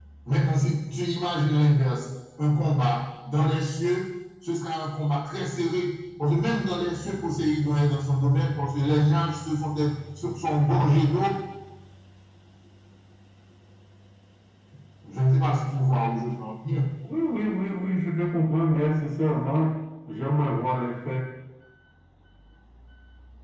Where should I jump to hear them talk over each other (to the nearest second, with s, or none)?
none